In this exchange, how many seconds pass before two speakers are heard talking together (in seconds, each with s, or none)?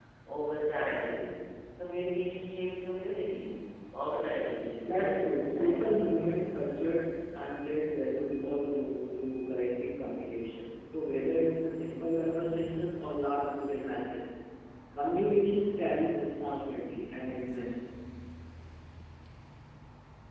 4.8 s